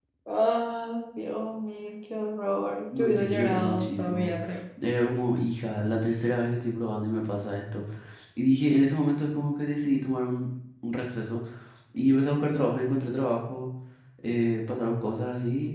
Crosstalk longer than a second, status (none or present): present